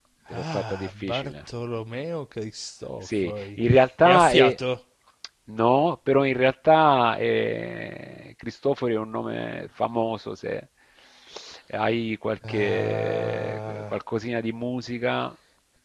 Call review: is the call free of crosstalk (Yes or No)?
No